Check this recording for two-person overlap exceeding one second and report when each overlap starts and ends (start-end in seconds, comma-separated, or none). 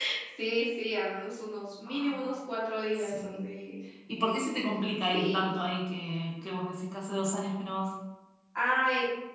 none